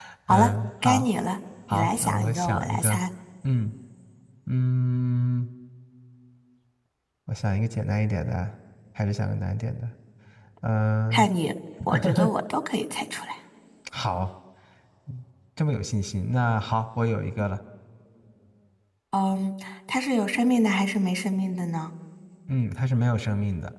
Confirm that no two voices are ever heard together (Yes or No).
No